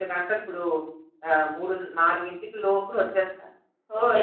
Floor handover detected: Yes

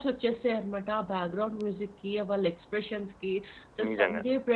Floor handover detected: No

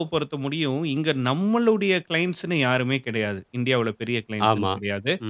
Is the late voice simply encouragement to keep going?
Yes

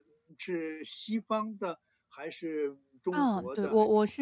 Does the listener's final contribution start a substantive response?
Yes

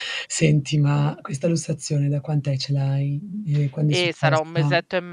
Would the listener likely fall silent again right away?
No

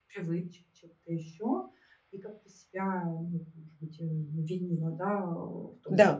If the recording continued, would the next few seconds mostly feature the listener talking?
No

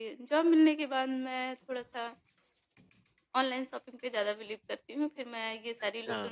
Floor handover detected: No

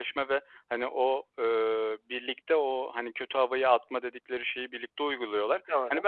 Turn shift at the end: No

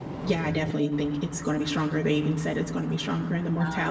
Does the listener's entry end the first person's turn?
No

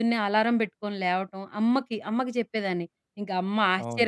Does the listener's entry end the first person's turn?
No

